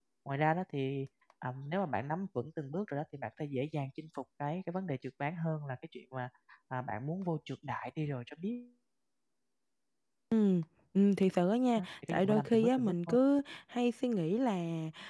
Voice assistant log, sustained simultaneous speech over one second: present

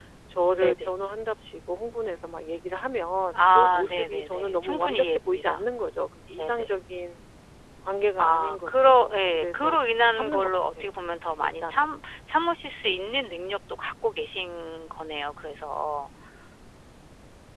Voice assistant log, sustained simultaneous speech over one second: present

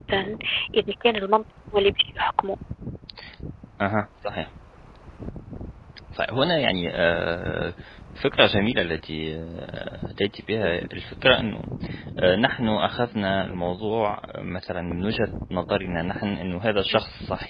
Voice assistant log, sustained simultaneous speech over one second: none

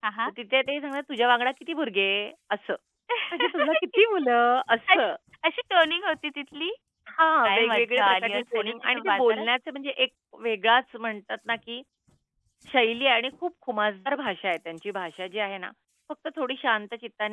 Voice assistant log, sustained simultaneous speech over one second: present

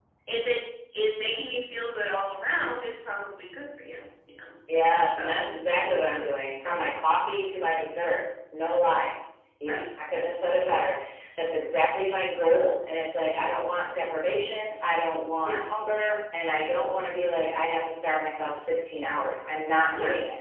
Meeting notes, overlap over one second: none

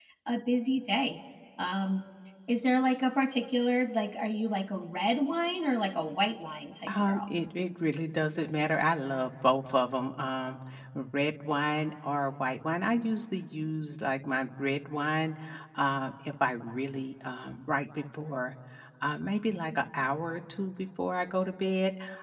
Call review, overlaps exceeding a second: none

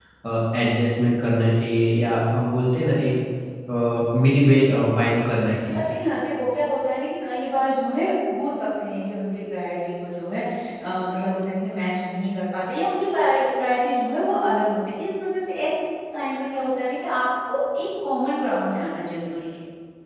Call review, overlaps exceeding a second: none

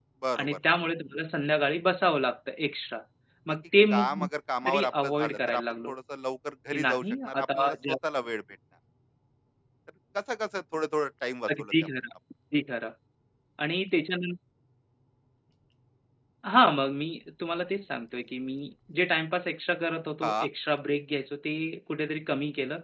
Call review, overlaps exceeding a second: present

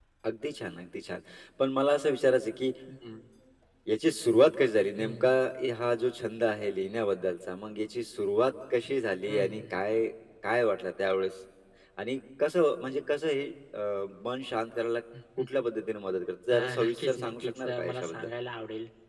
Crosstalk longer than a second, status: present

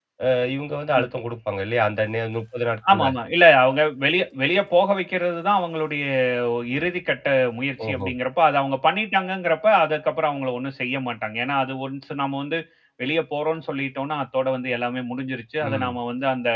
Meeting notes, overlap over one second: none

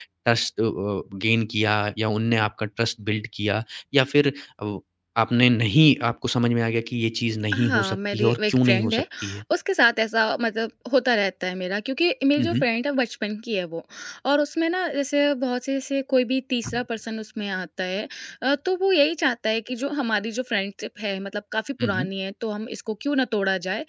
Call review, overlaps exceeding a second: present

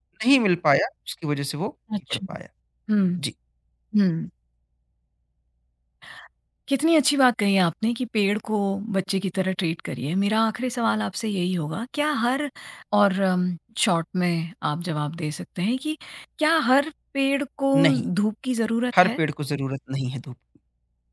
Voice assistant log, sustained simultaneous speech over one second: none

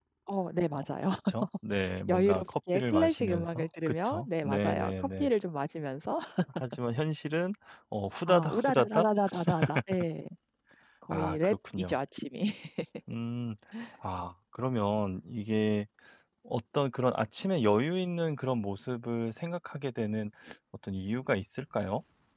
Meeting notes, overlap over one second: present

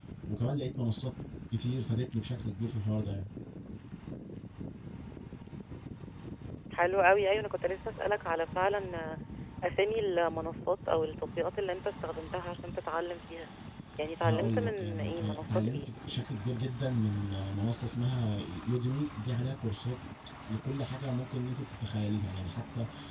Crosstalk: present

